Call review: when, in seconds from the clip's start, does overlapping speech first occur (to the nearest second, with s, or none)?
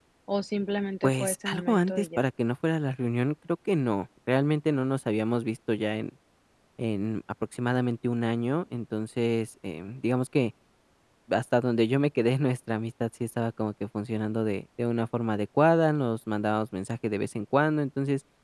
1 s